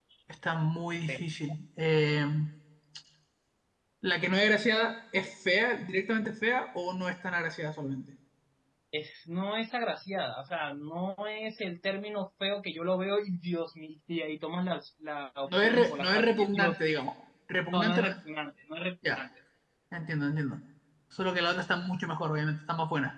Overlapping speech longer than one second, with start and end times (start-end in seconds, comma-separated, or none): 15.5-17.0